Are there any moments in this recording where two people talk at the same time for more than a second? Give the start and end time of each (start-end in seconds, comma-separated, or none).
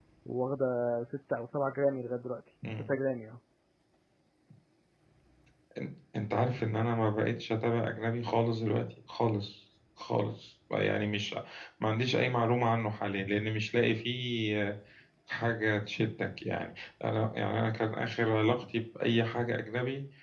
none